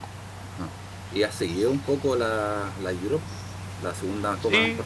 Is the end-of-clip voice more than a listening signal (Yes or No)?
Yes